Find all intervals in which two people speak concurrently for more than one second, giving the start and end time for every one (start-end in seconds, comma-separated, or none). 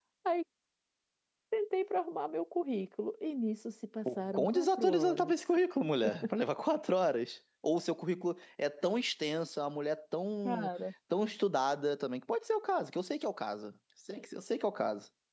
4.1-5.3